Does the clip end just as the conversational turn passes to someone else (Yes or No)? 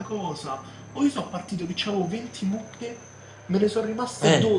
No